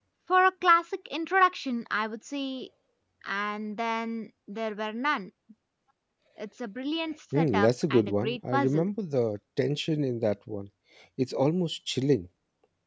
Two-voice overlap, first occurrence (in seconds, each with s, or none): 7.3 s